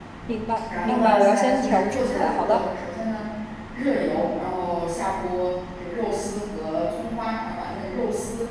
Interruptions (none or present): present